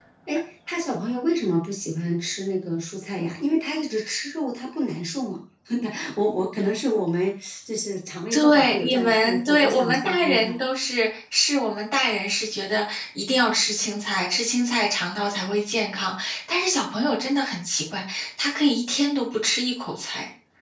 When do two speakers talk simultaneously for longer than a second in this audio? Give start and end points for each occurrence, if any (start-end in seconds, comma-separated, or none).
8.3-10.6